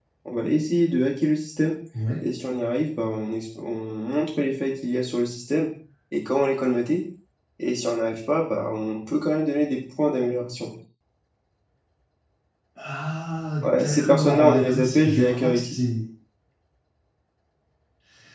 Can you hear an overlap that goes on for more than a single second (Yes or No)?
Yes